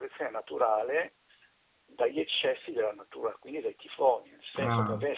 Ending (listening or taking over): listening